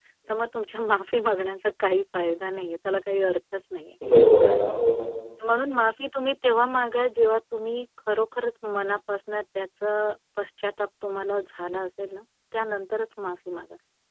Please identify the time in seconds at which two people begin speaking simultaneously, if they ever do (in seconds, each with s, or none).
none